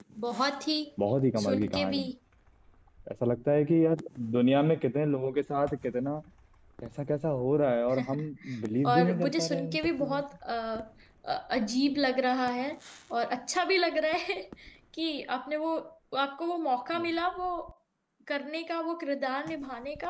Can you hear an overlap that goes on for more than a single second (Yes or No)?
Yes